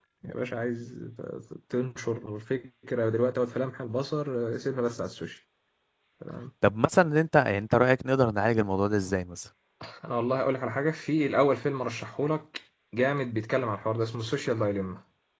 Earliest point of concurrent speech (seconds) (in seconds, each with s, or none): none